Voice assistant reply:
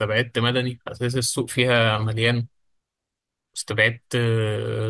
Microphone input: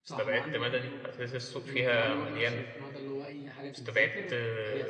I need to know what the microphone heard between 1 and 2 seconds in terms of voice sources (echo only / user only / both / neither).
both